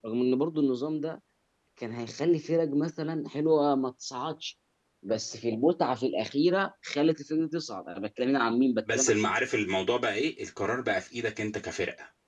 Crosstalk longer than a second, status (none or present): none